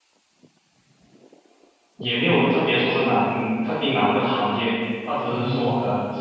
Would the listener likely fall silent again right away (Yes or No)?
Yes